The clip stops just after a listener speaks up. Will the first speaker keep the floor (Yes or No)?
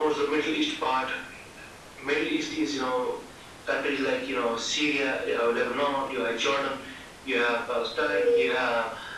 Yes